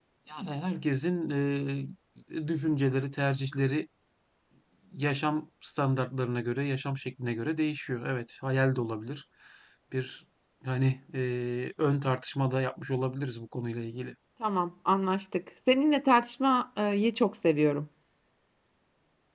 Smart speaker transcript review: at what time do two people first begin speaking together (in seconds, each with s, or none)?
none